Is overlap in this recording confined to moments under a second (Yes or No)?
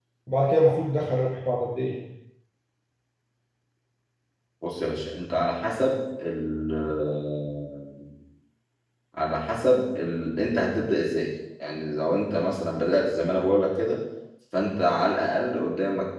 Yes